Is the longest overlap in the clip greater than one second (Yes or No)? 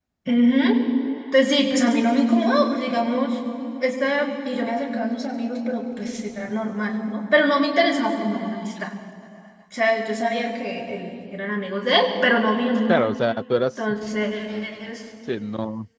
No